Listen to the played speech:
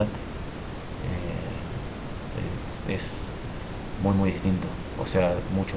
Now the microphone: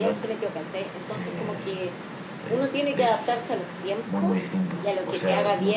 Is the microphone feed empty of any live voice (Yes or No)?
No